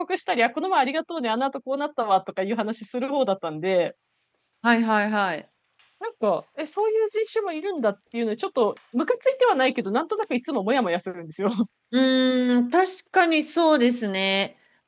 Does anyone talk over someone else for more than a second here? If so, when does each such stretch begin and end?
none

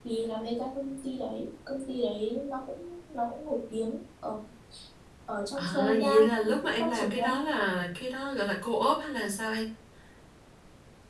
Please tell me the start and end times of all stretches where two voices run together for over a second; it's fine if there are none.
5.5-7.4

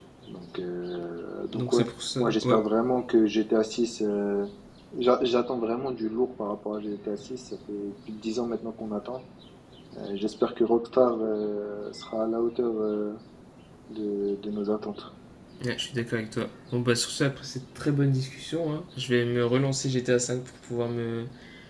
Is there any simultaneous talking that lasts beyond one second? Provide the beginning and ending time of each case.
none

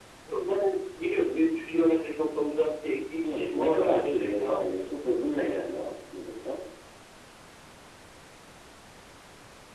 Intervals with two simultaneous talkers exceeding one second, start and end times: 3.2-4.9

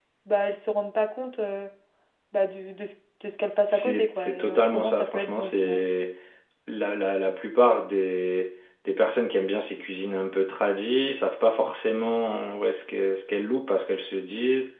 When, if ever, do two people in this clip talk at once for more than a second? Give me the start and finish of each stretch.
3.7-5.8

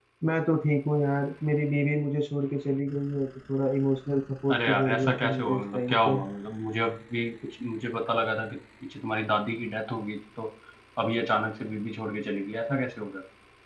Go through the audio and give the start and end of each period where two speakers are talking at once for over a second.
4.5-6.2

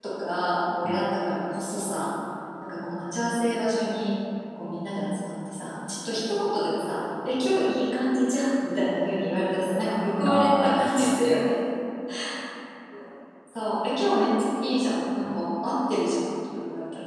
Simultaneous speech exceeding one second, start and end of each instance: 10.2-11.5

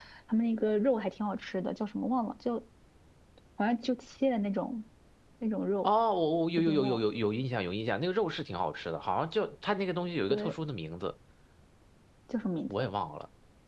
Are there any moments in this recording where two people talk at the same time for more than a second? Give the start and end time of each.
none

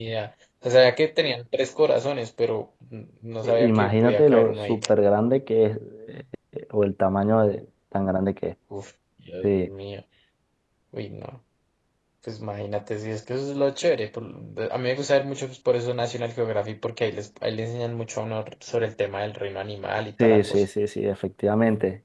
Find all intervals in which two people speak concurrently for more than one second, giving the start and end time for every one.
3.4-4.8

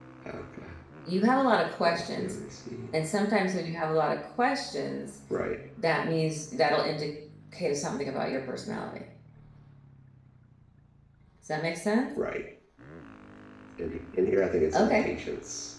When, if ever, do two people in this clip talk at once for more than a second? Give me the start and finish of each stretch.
none

